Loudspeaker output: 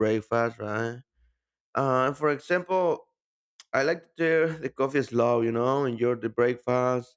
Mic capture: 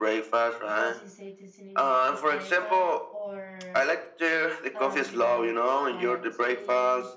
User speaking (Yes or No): Yes